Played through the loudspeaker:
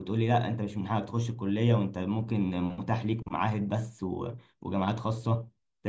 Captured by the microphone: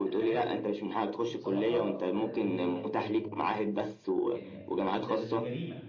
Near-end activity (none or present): present